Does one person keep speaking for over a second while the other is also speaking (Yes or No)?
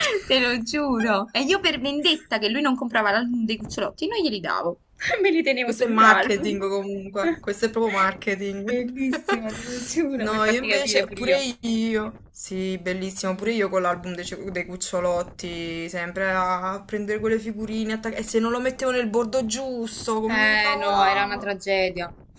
Yes